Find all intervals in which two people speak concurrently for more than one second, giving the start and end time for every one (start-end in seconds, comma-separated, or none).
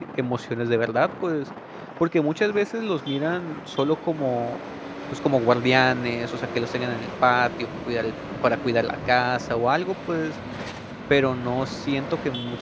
none